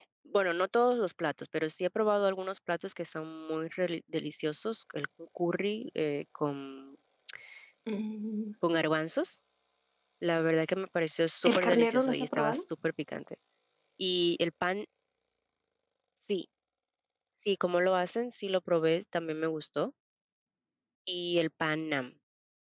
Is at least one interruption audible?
Yes, from 11.4 s

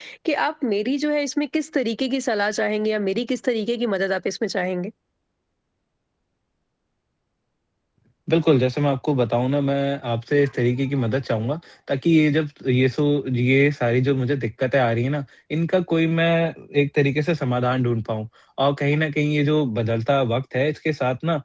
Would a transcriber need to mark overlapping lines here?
No

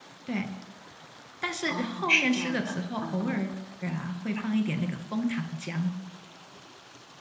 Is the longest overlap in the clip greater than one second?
Yes, from 1.7 s

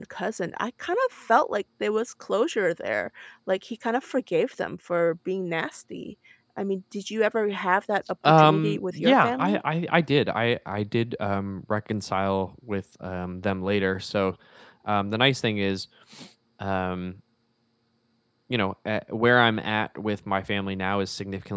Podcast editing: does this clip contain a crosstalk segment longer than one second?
Yes, from 8.2 s

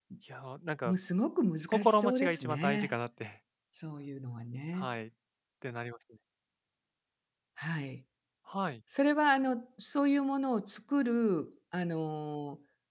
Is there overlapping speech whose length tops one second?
Yes, from 1.7 s

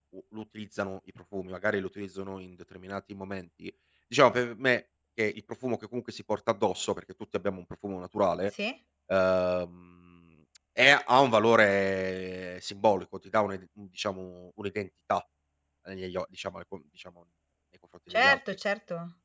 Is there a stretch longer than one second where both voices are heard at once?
No

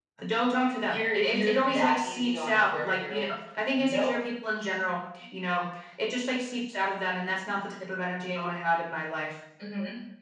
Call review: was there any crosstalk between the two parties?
Yes, from 0.8 s

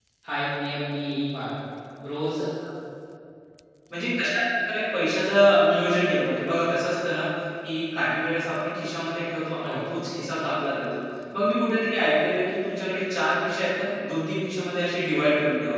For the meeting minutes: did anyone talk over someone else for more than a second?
No

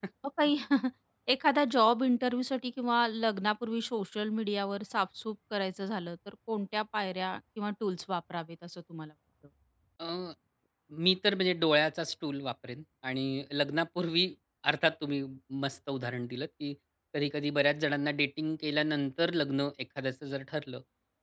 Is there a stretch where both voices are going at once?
No

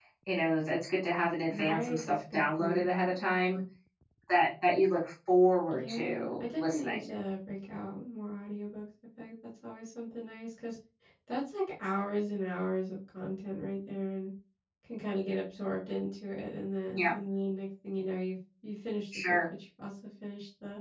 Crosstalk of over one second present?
Yes, from 1.5 s

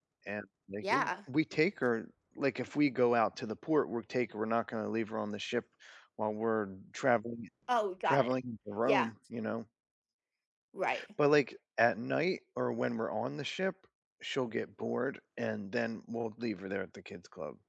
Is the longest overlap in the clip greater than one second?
No

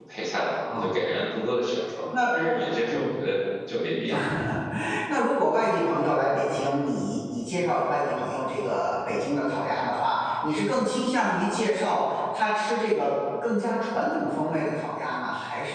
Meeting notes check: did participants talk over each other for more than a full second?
No

